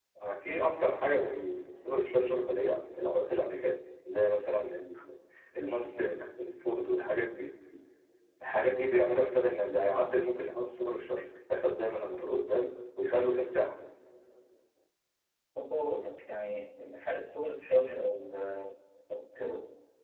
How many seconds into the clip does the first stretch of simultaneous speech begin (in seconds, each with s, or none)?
none